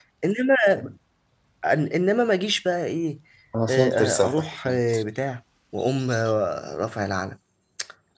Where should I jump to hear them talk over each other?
3.7 s

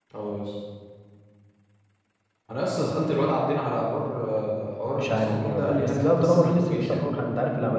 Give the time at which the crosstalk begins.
4.9 s

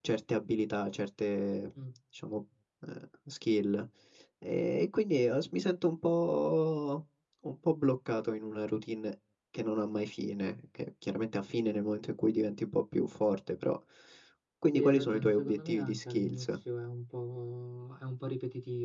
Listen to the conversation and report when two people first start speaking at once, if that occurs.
14.7 s

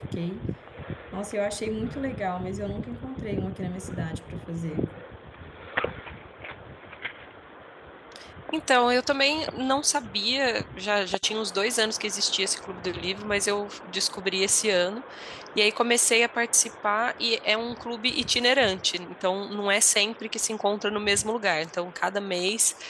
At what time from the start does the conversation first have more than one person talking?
none

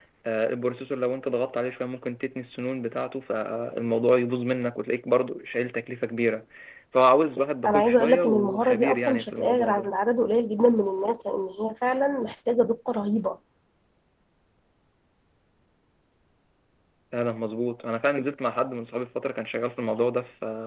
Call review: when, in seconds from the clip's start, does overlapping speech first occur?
7.7 s

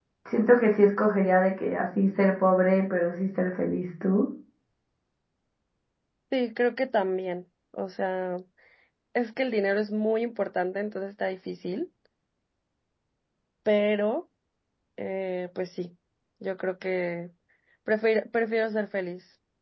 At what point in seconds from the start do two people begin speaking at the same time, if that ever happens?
none

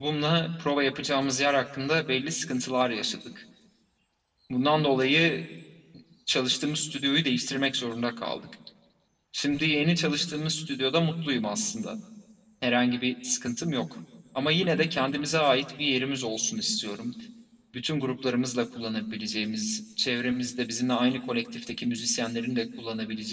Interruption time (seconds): none

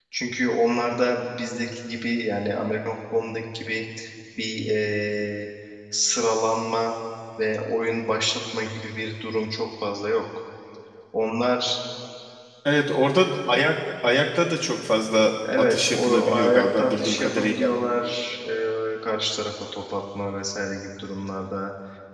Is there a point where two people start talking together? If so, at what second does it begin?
15.4 s

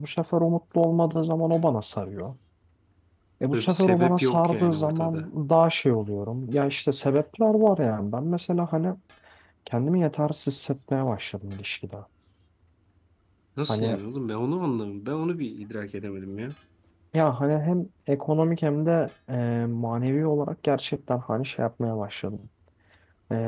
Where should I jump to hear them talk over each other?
3.5 s

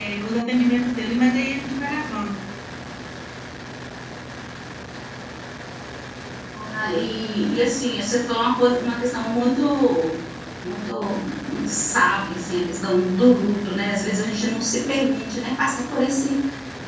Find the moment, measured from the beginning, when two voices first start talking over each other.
none

